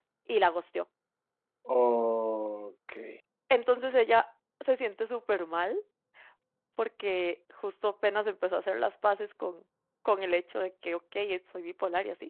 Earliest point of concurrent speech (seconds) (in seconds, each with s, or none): none